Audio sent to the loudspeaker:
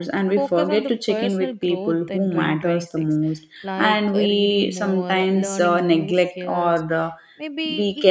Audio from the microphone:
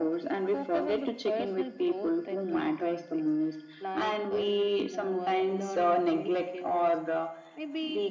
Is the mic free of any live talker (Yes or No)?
Yes